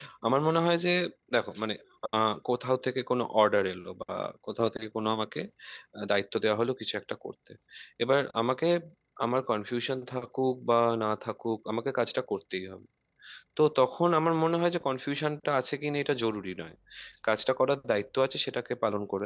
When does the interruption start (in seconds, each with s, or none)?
none